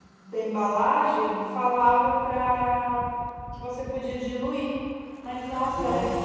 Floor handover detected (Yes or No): No